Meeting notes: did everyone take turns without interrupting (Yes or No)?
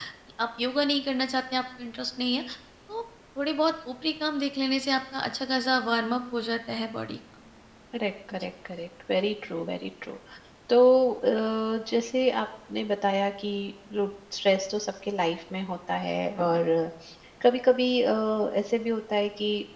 Yes